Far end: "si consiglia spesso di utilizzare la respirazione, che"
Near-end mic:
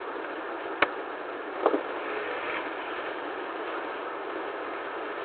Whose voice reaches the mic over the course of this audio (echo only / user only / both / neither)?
neither